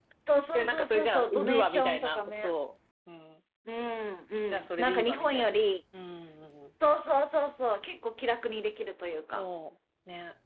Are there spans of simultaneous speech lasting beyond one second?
Yes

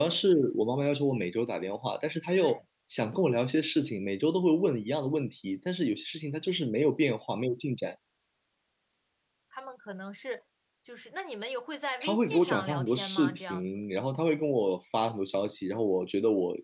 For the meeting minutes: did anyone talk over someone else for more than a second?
Yes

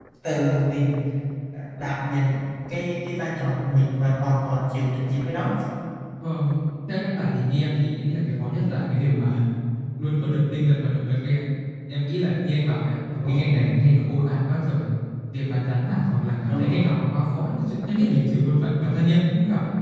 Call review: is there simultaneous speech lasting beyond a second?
No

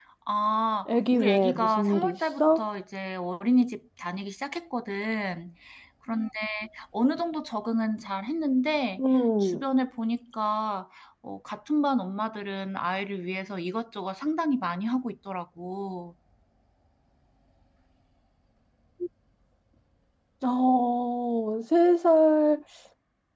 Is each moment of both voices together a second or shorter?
No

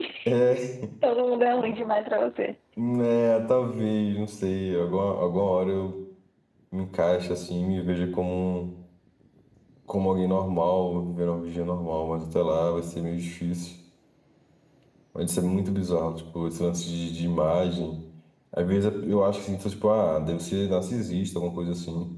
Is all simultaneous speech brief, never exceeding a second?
Yes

